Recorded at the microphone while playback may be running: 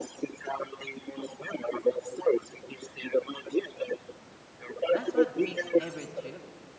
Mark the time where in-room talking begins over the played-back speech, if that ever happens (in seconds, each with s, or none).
4.9 s